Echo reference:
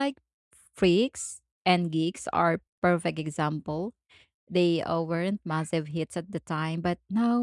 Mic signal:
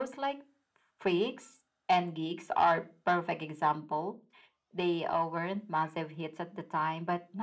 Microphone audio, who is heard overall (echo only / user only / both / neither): echo only